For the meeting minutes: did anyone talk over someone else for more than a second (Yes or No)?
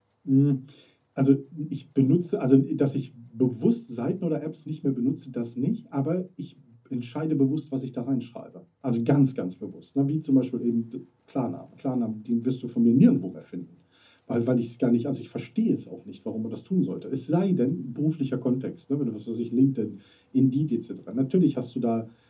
No